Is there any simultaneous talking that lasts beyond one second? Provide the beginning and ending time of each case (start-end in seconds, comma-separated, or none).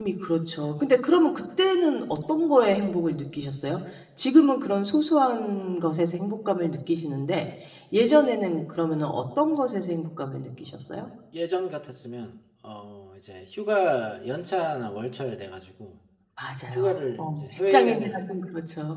16.7-18.2